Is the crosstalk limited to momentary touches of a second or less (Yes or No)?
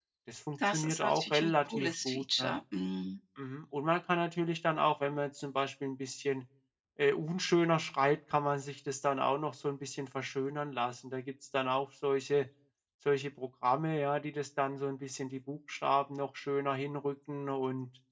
No